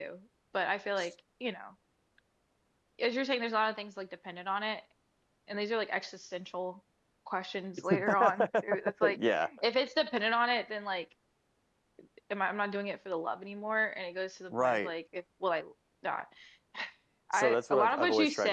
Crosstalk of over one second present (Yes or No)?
Yes